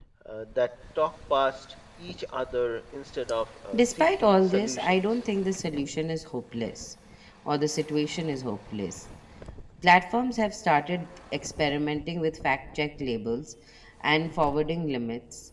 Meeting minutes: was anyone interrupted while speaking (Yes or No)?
Yes